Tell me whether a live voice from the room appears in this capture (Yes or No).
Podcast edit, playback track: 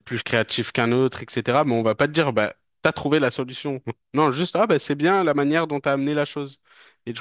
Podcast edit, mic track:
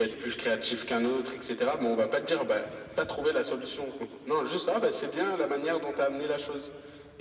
No